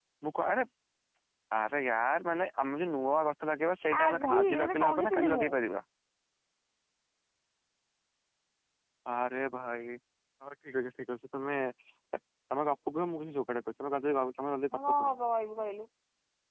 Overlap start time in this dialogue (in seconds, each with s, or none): 4.0 s